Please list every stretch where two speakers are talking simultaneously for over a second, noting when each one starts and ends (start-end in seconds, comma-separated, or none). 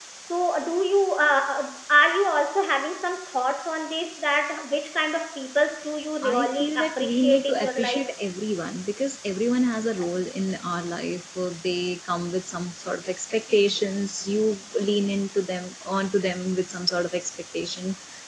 6.2-8.0